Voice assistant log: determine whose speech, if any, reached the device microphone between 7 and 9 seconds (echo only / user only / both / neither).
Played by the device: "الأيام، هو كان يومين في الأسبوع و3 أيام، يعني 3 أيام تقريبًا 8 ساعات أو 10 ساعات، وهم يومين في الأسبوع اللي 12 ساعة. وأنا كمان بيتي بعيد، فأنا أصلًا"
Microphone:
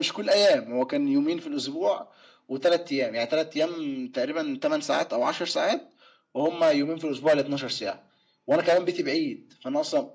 echo only